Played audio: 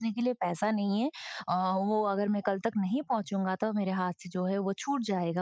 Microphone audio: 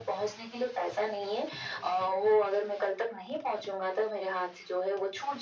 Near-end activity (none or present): none